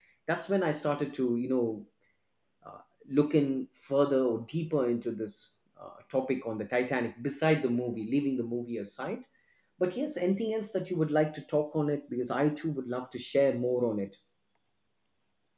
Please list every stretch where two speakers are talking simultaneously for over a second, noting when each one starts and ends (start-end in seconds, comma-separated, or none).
none